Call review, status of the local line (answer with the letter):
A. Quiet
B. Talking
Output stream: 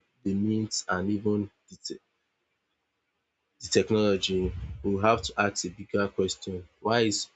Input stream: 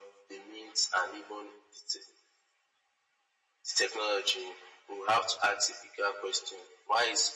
A